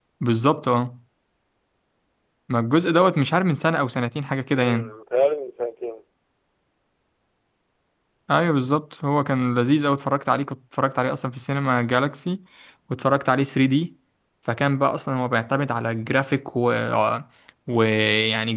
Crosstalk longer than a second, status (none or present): none